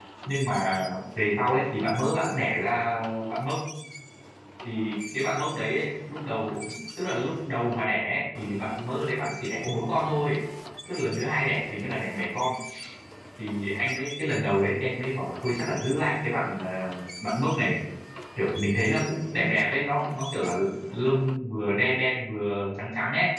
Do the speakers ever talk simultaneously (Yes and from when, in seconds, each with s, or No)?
No